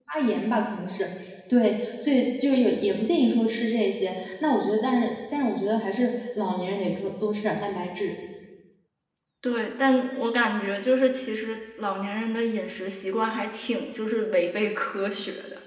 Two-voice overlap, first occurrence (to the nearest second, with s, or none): none